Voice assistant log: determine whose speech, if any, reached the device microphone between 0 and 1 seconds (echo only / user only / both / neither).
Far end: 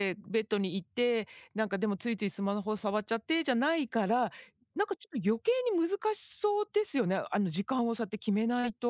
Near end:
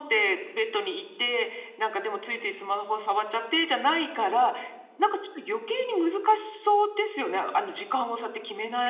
echo only